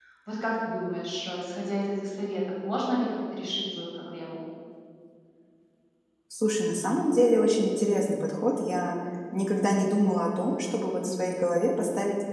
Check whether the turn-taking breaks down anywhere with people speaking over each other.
No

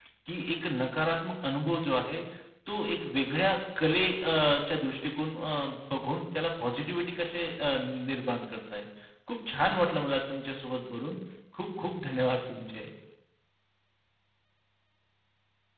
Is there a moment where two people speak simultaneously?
No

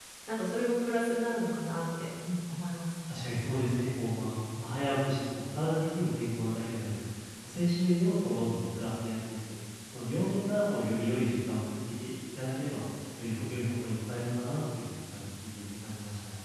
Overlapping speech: No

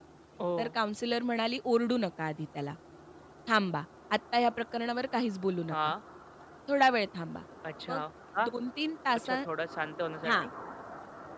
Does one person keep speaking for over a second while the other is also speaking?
No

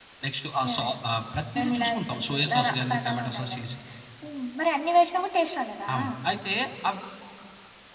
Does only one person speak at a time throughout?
No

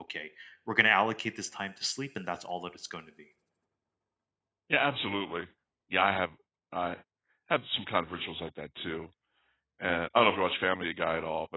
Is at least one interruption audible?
No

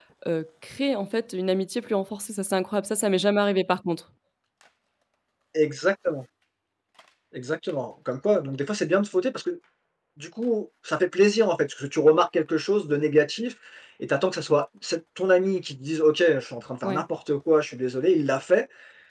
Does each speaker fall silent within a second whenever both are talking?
Yes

